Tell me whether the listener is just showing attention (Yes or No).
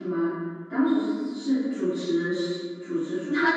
No